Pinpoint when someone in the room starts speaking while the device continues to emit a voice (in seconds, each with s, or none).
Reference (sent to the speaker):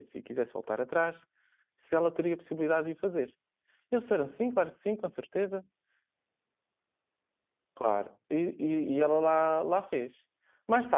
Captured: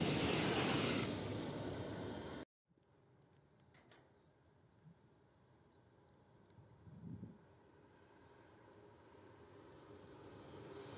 none